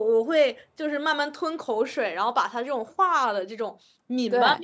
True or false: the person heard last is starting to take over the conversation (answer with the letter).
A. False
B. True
A